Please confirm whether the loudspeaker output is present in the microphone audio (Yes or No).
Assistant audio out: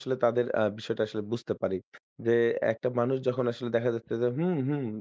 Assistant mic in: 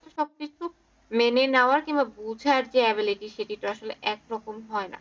No